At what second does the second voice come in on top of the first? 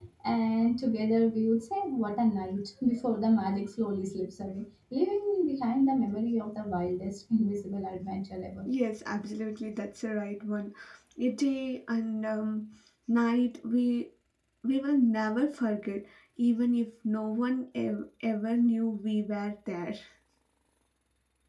none

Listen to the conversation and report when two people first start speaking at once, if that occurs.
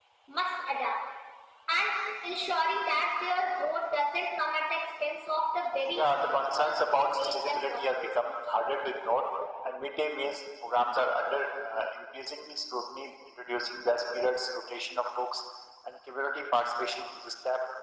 5.9 s

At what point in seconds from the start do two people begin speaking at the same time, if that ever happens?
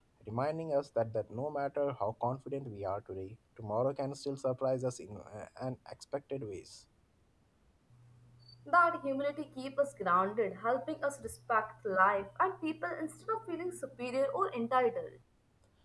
none

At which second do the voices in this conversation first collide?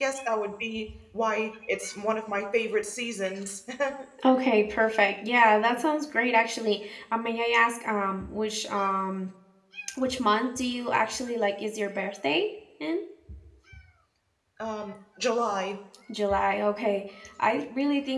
none

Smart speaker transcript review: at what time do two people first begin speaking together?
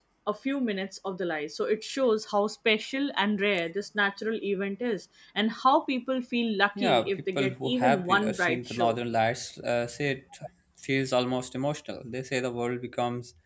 6.8 s

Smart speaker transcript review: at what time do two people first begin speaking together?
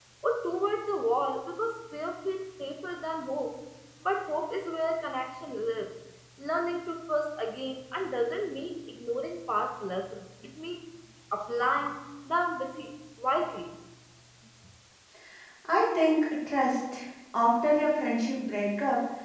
none

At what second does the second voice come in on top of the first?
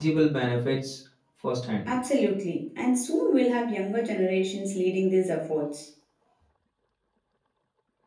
none

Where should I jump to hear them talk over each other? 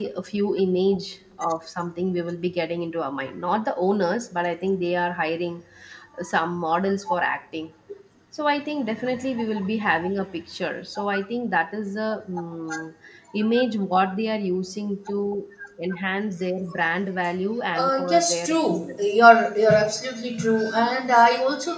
17.7 s

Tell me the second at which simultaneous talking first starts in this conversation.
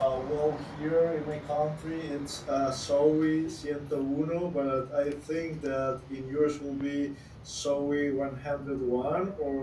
none

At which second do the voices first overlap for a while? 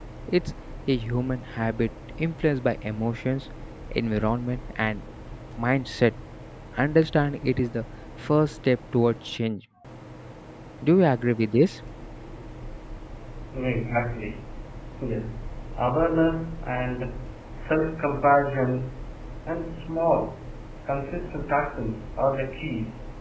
none

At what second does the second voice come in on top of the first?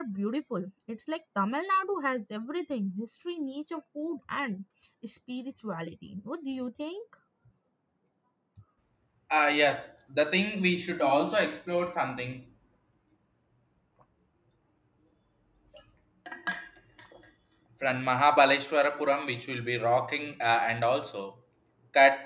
none

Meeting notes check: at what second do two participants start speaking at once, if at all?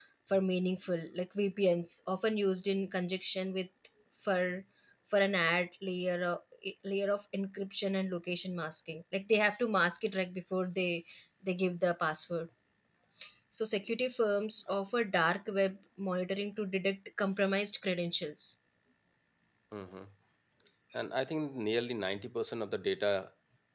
none

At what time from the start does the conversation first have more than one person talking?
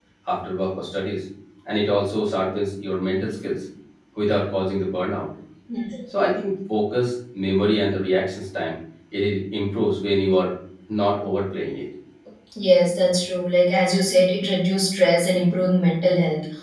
none

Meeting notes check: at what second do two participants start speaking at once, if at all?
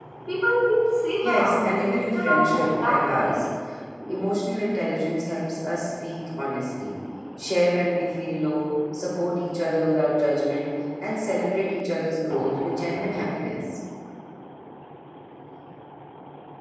1.2 s

